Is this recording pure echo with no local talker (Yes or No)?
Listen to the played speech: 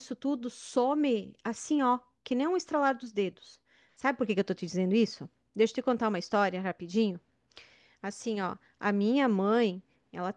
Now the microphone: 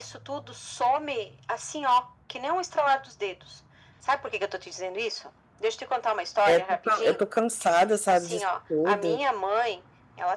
No